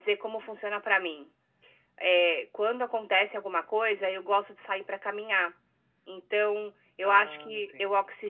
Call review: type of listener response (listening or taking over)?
listening